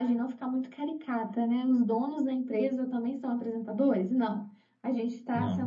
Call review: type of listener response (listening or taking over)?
listening